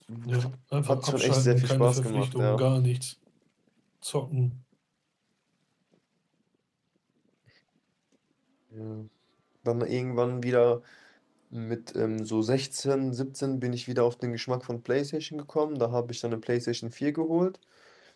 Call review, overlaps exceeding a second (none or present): present